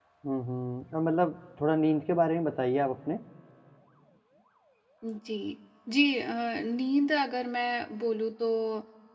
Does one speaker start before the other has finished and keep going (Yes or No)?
No